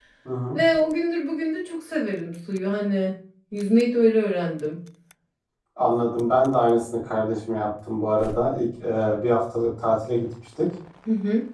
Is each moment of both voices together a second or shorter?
Yes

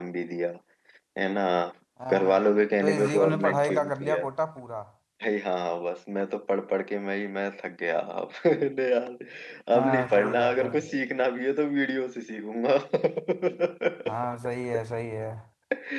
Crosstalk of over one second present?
Yes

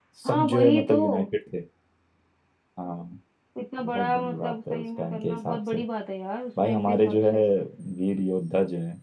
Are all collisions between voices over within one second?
No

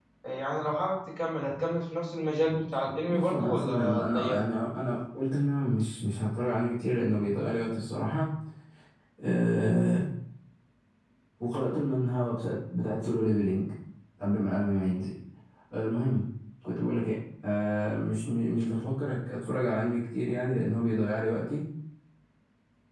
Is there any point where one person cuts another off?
Yes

